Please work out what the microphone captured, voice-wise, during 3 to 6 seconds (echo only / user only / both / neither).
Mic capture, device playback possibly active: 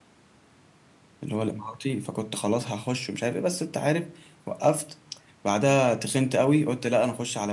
user only